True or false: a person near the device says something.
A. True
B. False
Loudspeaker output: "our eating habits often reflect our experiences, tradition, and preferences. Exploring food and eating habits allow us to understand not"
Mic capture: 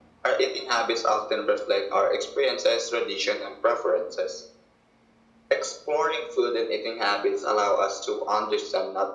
B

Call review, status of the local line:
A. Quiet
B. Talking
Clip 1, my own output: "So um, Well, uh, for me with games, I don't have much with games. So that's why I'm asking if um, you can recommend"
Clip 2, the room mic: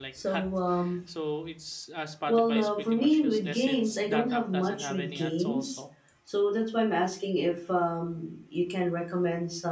B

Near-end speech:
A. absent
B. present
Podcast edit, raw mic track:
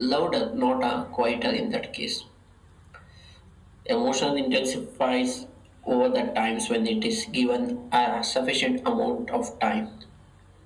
A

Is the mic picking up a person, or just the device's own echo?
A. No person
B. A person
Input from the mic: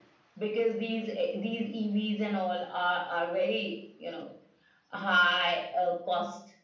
A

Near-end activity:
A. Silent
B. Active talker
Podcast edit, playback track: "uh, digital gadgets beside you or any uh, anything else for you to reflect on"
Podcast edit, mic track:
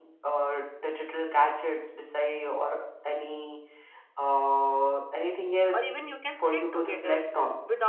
B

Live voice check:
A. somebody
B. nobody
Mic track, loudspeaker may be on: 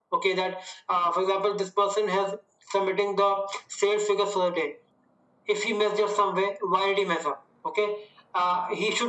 B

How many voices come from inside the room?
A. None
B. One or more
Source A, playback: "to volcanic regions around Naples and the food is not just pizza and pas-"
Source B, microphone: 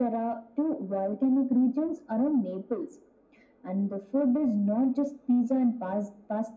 A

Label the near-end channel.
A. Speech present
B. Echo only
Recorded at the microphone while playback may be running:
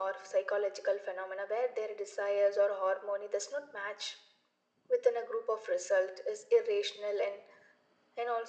B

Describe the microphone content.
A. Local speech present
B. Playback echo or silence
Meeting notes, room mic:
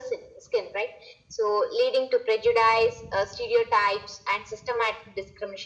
B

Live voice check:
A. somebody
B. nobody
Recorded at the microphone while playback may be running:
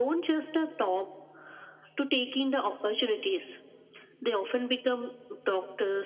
B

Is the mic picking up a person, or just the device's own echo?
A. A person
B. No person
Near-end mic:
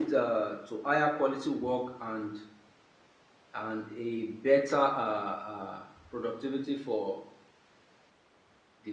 A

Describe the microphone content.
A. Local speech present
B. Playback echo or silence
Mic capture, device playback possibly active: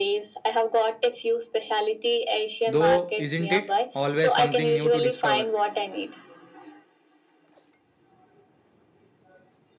A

